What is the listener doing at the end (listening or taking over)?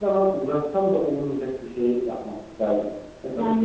taking over